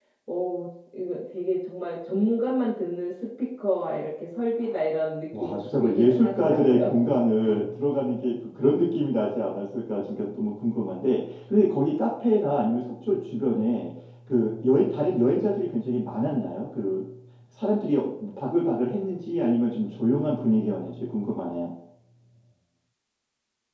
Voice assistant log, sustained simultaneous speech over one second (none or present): present